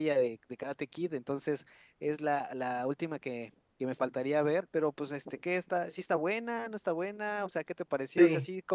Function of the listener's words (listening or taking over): listening